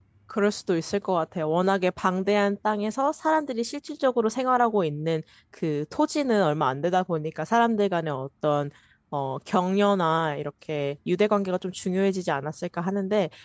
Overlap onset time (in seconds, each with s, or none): none